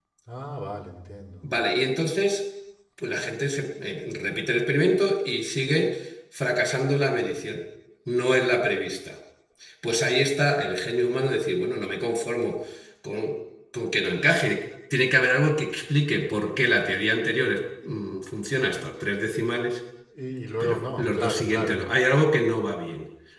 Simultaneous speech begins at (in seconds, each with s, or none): 20.6 s